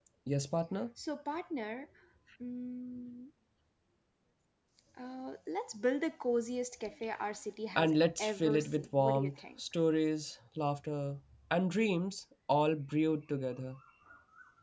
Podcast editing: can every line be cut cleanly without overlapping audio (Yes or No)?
No